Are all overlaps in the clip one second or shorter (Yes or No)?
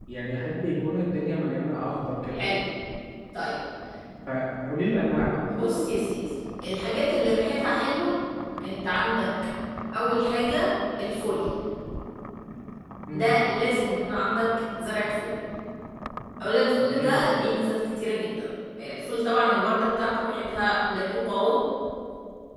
Yes